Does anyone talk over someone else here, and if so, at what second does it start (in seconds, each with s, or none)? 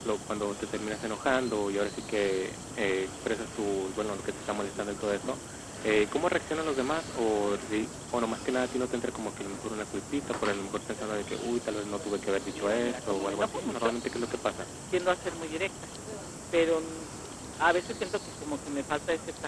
12.5 s